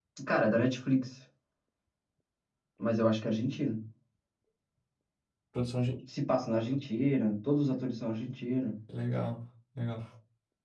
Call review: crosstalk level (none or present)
none